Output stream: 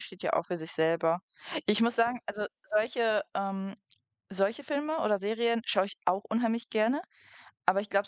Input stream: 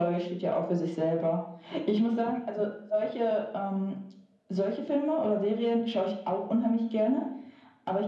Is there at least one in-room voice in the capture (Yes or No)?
No